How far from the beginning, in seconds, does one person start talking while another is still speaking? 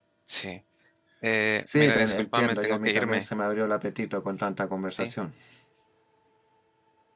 1.8 s

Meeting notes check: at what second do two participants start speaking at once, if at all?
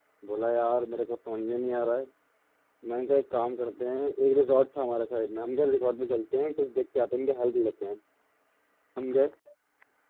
none

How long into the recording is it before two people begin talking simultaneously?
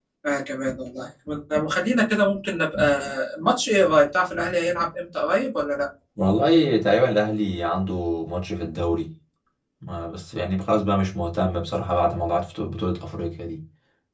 none

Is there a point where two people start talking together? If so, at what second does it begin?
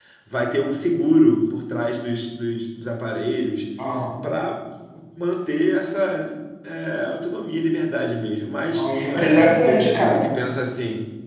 8.7 s

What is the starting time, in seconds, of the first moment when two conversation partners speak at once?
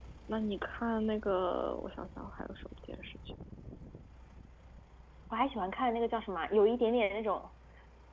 none

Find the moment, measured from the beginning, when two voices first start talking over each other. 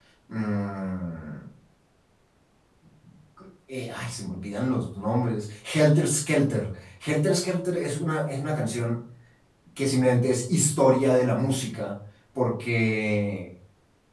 none

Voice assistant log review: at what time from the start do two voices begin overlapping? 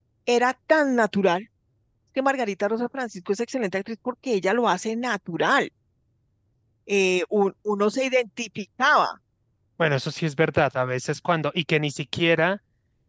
none

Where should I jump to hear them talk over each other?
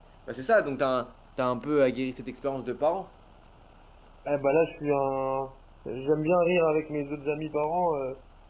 none

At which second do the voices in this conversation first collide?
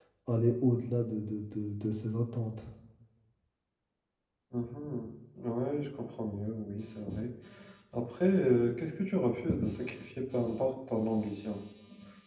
none

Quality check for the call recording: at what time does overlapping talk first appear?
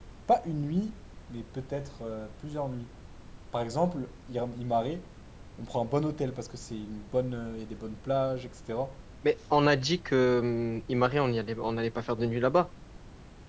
none

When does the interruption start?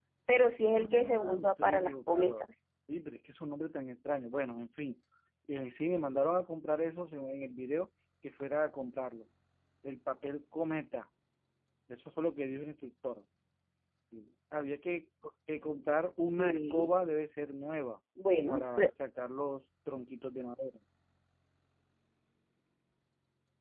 0.7 s

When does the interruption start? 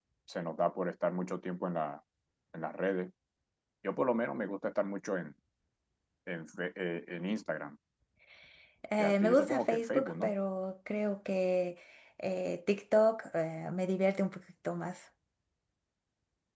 9.0 s

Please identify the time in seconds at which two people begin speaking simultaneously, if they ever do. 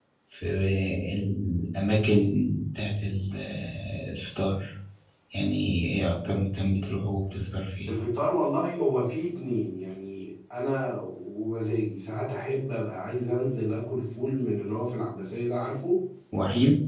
none

